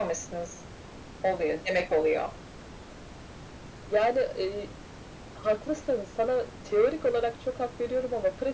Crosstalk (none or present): none